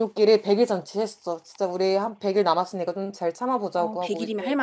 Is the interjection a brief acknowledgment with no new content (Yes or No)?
No